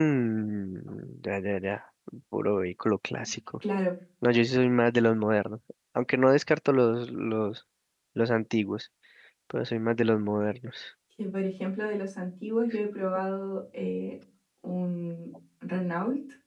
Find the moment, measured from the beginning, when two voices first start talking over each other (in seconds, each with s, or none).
none